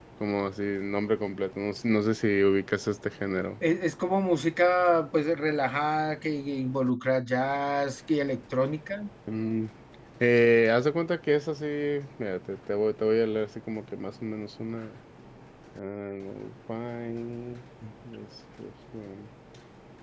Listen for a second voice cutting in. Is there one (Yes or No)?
No